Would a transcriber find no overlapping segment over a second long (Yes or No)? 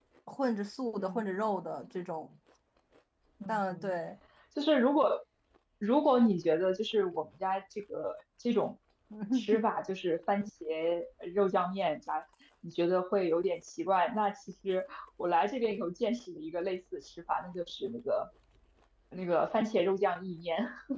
Yes